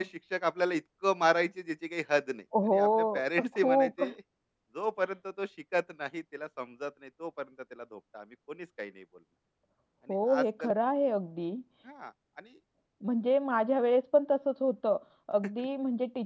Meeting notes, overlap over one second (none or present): present